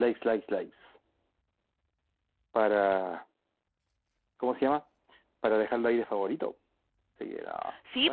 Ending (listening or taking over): taking over